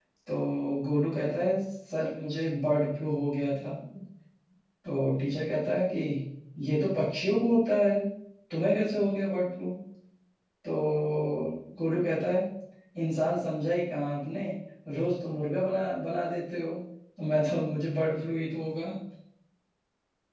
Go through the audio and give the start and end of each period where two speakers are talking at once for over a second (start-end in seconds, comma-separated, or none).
none